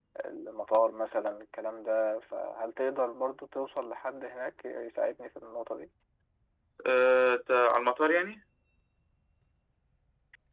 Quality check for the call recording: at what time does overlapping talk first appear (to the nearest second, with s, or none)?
none